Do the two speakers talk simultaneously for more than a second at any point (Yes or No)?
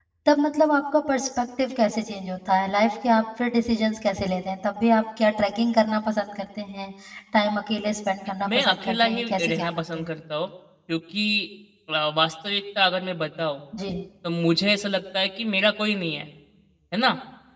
Yes